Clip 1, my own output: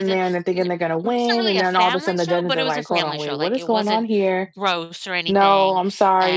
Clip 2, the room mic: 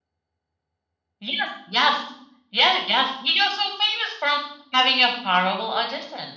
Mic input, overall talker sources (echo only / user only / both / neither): user only